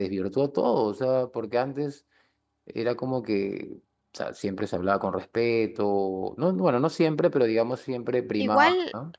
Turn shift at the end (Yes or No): Yes